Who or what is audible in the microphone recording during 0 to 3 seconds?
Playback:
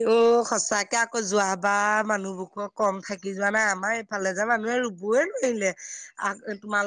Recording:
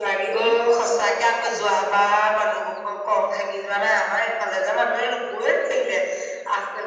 both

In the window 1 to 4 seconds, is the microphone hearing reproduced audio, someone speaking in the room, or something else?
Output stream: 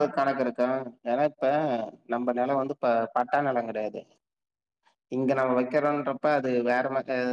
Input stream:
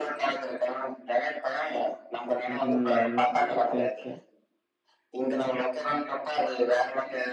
both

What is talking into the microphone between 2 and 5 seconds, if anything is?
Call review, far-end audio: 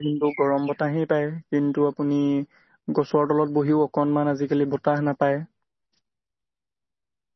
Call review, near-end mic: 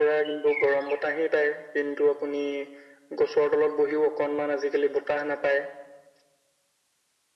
echo only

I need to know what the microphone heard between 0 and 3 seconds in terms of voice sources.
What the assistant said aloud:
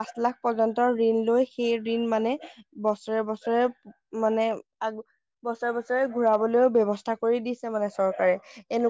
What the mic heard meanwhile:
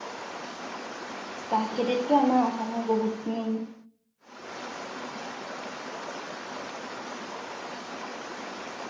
user only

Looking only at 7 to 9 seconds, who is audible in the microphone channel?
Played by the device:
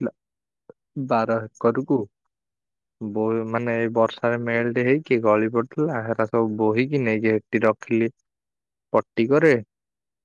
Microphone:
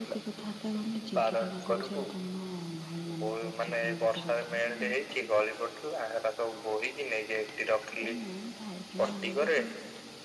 both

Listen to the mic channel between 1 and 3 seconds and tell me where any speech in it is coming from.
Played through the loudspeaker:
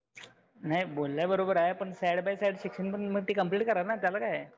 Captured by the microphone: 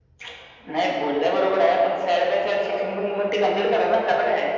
echo only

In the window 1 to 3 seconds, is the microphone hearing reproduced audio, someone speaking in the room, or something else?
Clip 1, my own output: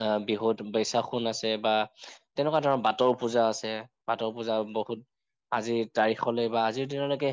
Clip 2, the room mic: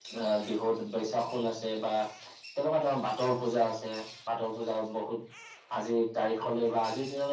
echo only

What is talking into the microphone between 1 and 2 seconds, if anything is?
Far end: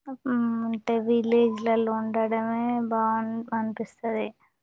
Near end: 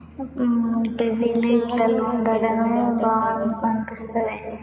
both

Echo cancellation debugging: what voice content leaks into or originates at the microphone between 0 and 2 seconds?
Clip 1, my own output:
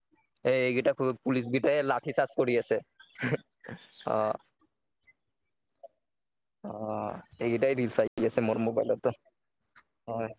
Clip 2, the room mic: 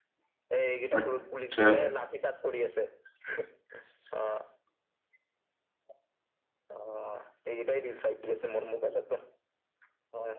both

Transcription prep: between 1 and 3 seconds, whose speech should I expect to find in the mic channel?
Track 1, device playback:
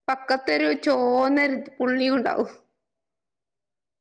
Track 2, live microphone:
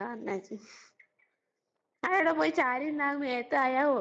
user only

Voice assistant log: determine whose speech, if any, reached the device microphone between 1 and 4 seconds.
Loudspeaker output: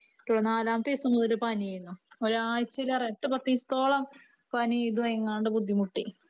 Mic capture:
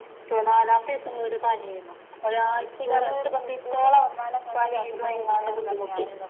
both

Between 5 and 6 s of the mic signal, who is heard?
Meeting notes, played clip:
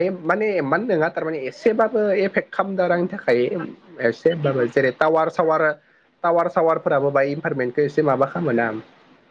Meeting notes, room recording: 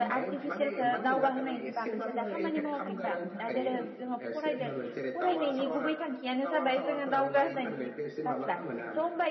both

